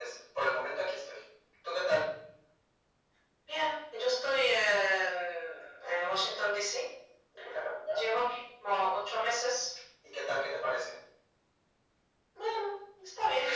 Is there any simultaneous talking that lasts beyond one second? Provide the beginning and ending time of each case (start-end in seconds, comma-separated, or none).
none